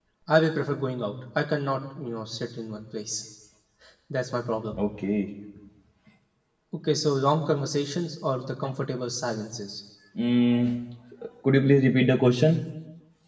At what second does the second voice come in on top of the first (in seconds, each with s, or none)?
none